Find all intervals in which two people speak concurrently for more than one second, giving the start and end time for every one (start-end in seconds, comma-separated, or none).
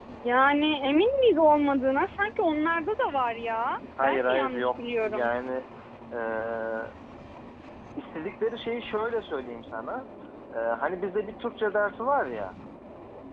4.0-5.3